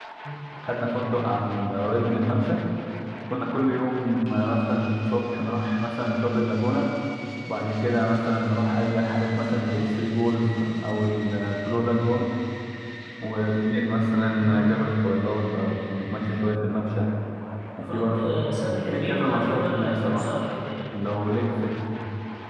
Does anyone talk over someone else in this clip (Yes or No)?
Yes